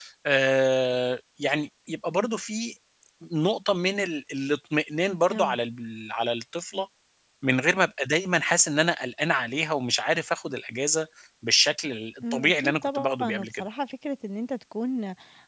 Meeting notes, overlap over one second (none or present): present